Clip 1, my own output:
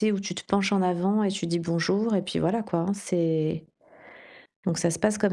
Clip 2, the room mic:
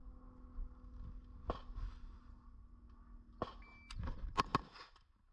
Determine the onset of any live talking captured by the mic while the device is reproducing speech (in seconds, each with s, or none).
none